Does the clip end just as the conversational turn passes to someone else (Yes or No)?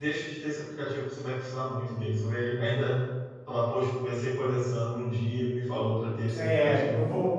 Yes